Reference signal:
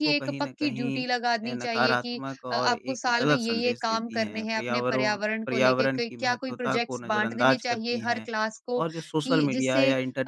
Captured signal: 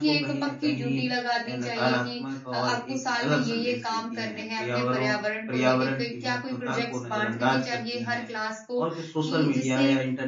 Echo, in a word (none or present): present